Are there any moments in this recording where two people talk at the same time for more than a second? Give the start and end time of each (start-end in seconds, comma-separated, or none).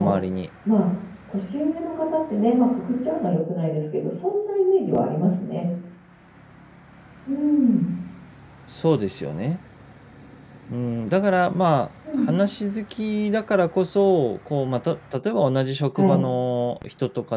none